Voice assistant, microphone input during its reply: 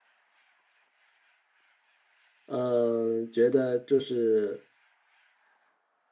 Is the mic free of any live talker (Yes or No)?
No